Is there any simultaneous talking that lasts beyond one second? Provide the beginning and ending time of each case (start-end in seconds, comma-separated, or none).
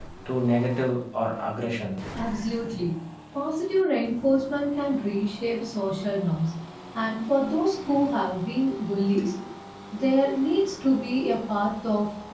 none